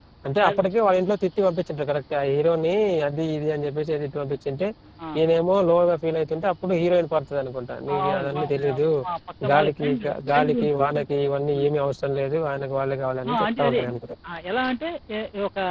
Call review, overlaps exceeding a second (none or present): present